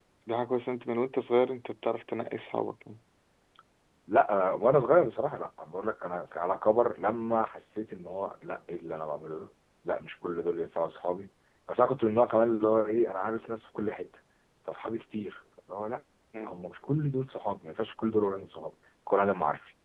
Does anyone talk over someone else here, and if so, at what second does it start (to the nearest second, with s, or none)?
none